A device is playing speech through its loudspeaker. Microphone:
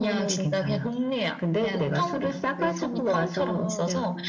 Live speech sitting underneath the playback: Yes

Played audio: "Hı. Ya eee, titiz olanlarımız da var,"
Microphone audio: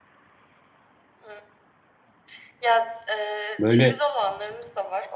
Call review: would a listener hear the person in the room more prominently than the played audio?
Yes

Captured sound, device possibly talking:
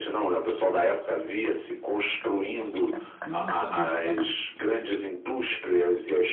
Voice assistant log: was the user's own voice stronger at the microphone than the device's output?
No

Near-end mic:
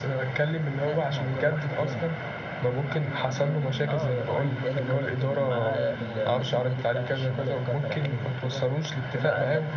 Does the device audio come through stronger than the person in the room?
Yes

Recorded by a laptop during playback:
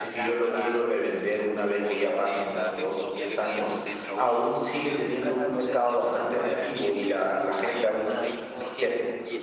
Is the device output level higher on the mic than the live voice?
No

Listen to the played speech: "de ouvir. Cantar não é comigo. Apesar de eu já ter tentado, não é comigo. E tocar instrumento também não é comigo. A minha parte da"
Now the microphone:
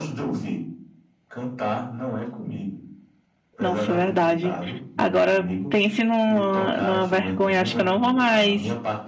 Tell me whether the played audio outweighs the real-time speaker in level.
No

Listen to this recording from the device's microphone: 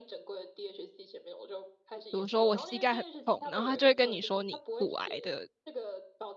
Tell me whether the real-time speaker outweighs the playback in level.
Yes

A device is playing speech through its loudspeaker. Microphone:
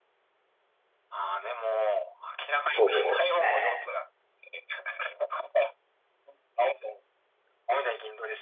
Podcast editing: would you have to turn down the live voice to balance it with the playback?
Yes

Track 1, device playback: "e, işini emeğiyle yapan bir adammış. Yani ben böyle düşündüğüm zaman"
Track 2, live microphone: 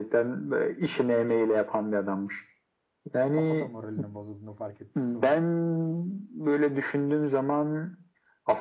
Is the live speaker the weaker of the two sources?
Yes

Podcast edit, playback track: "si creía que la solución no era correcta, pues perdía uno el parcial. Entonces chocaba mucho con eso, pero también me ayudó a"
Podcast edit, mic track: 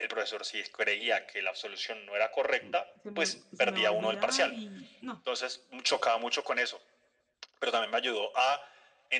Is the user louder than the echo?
No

